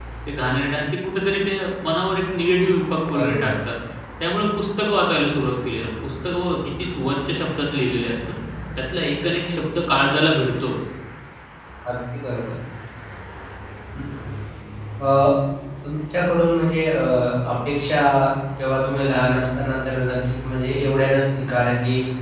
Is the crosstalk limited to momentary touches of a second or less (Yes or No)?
Yes